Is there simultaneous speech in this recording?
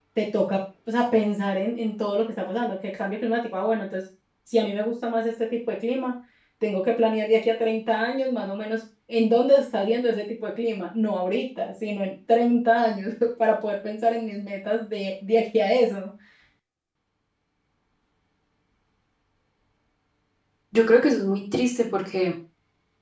No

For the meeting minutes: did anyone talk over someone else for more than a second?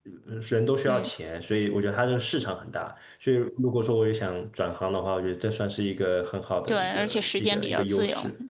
Yes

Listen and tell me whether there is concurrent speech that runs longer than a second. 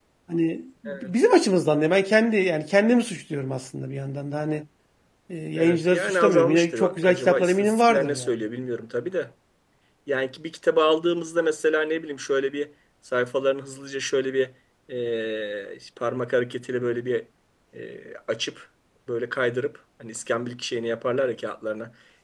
Yes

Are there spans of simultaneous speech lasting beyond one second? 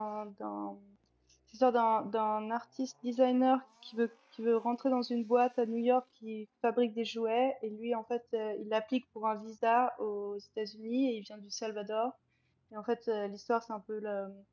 No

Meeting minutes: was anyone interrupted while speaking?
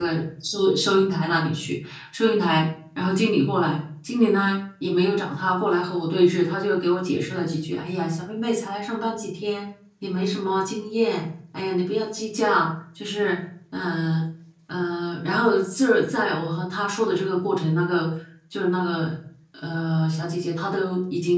No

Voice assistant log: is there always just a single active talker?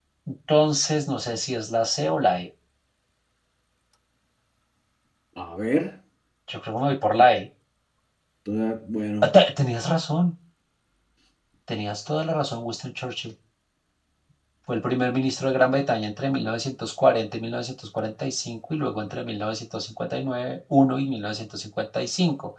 Yes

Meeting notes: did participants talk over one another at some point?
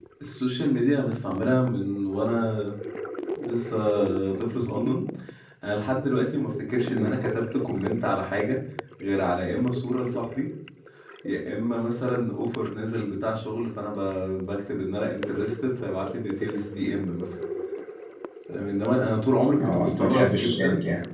Yes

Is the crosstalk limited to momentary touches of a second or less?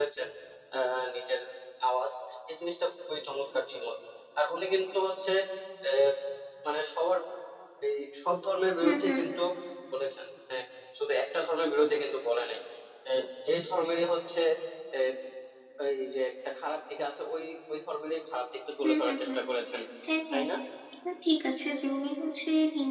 Yes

